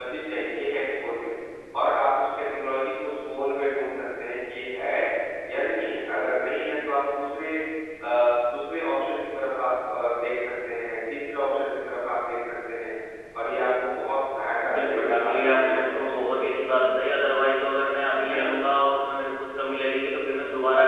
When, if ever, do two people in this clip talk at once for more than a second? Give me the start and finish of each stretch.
14.7-16.4

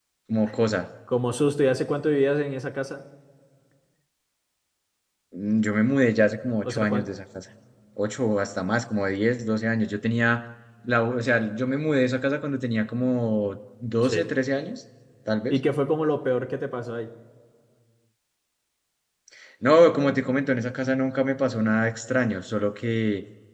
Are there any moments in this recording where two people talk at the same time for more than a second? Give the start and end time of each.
none

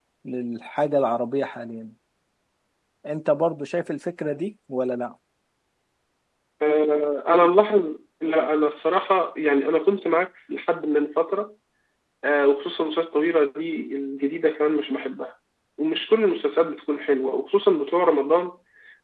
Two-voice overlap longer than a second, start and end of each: none

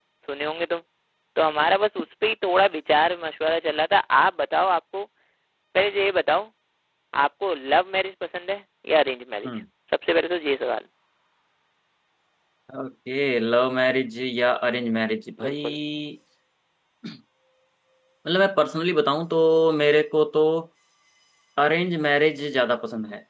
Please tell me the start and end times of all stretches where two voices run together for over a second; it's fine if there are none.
none

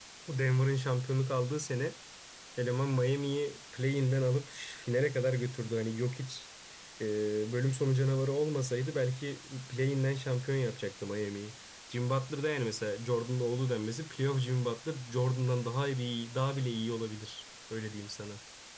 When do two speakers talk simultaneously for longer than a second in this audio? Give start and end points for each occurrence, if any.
none

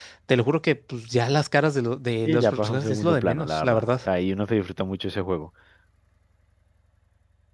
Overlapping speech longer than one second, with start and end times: 2.2-4.1

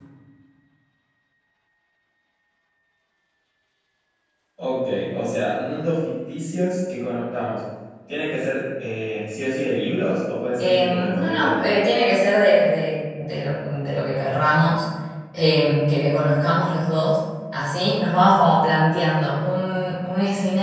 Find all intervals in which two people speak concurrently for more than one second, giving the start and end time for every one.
10.6-11.8

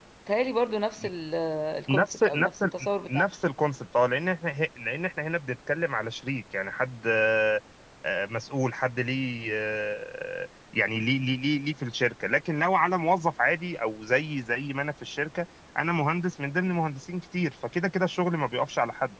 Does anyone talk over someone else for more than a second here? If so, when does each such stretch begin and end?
1.9-3.2

